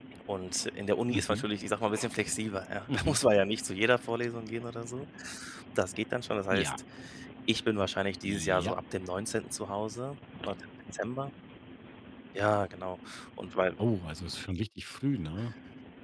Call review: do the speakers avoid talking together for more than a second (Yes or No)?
Yes